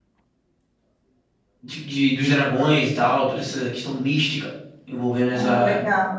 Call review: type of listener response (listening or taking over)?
taking over